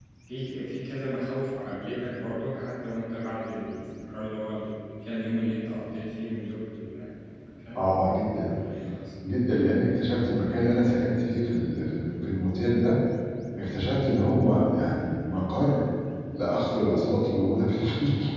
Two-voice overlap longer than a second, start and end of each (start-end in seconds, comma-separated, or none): none